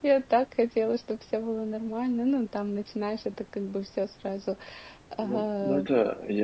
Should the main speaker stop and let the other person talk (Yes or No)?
Yes